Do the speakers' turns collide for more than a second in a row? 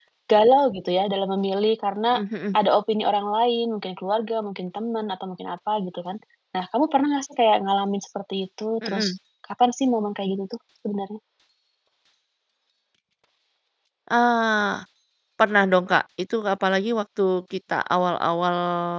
No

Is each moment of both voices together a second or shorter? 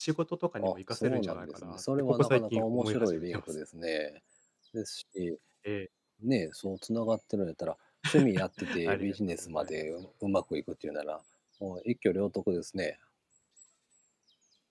No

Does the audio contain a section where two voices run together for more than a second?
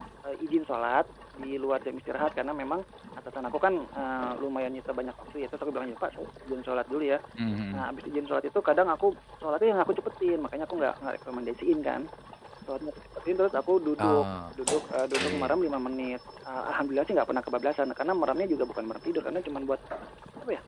No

